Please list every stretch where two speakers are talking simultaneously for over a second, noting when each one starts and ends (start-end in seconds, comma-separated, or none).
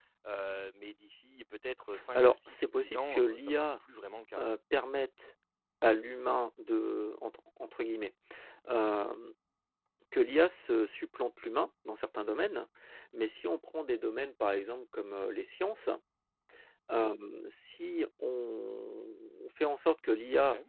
2.1-3.6